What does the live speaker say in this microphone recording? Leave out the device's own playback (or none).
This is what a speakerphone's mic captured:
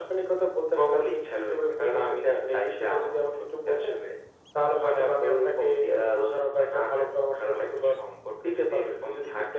none